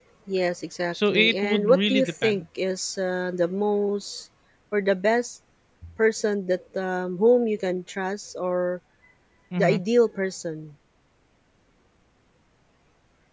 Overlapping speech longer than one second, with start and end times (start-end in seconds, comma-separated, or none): 1.1-2.4